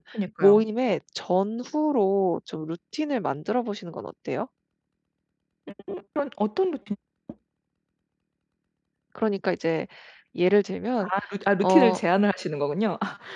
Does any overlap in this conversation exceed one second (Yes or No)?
No